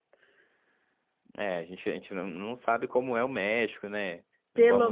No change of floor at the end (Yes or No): No